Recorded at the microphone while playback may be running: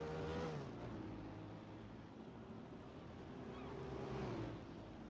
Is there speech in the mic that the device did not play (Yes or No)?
No